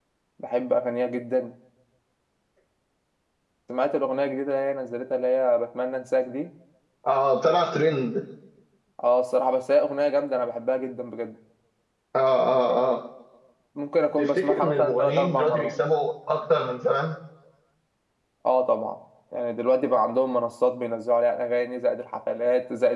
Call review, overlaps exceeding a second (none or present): present